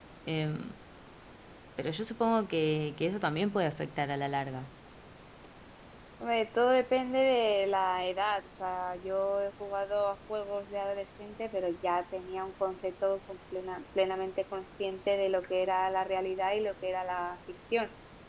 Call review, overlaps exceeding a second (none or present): none